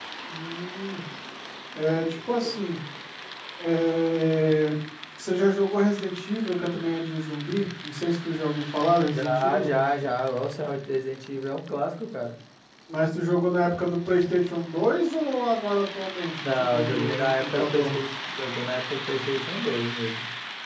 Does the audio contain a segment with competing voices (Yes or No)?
Yes